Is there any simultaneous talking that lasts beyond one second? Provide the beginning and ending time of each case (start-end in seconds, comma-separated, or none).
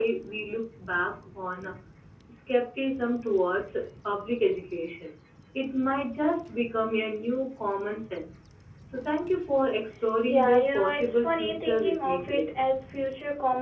10.2-12.4